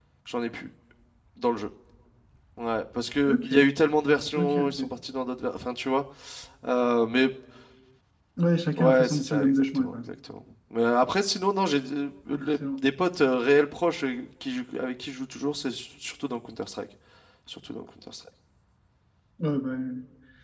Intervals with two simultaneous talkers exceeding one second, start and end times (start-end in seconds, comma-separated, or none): 8.8-10.0